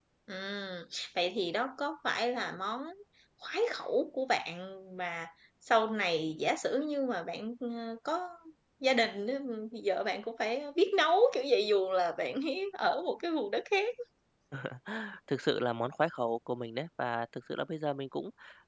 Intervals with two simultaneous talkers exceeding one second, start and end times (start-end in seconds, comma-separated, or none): none